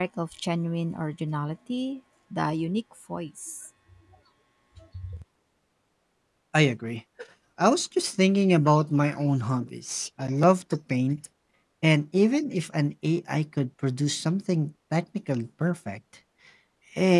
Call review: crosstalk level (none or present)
none